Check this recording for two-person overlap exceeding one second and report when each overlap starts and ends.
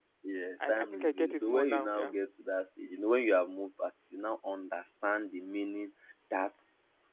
0.6-2.1

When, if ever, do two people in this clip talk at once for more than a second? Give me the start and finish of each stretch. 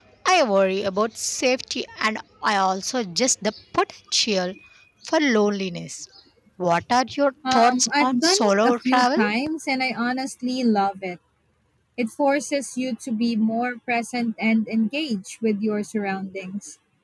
7.5-9.2

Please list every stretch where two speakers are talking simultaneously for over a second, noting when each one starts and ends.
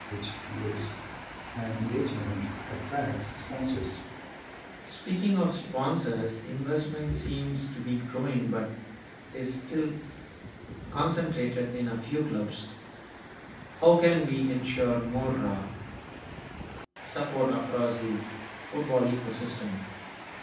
none

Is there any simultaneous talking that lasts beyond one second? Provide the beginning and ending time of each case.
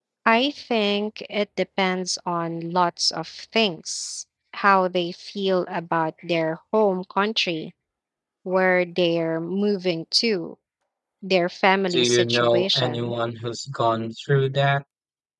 11.9-13.1

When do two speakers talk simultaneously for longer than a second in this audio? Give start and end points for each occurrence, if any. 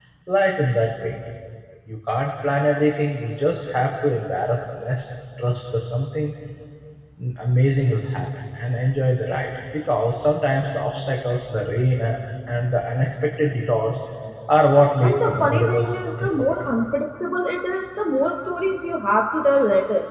15.0-16.7

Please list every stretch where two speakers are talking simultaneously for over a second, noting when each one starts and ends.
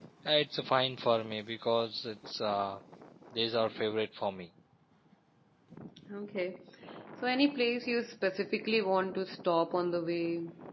none

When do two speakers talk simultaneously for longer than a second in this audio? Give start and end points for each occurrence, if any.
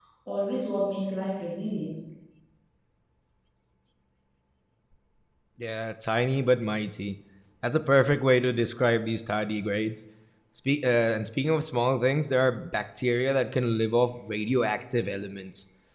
none

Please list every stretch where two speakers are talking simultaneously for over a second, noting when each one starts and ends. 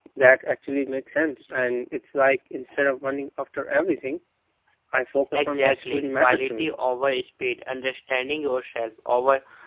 5.3-6.7

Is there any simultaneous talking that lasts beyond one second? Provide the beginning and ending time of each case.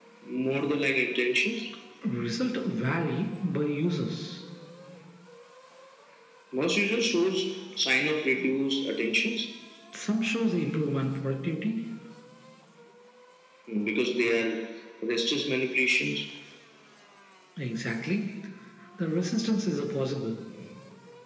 none

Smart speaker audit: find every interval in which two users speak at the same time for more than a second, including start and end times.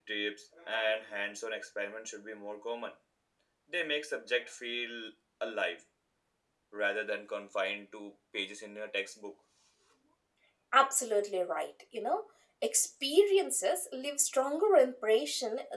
none

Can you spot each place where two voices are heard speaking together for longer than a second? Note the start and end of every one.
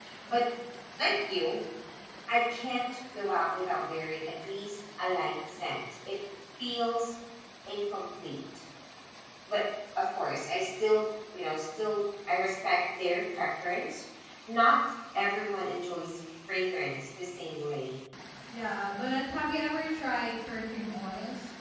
none

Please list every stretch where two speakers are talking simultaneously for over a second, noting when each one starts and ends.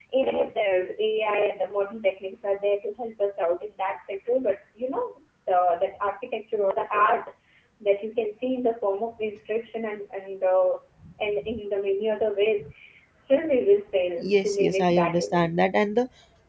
14.2-15.5

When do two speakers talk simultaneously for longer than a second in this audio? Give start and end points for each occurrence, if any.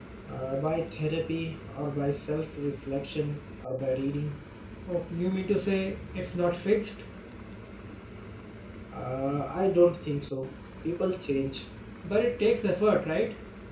none

